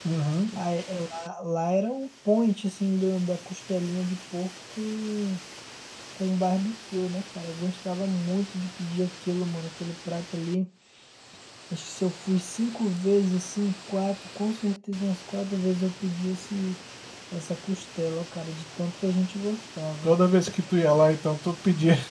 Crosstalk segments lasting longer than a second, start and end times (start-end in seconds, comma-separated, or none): none